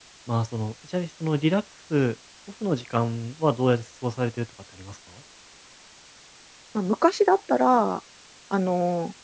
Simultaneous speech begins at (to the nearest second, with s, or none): none